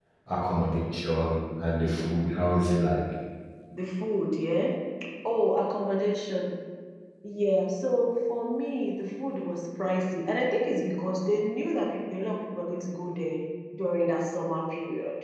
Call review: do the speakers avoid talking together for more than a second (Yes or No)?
Yes